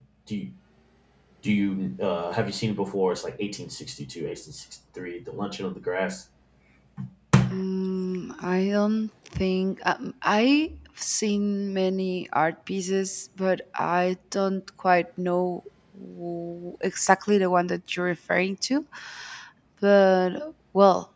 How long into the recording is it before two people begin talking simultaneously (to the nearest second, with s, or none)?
none